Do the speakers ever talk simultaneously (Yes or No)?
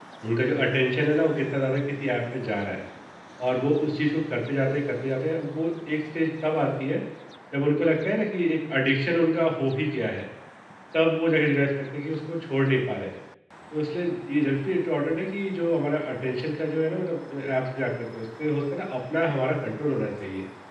No